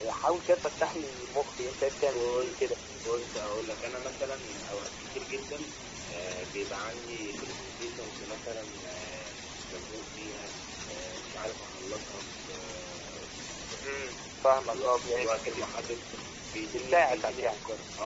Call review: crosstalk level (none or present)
present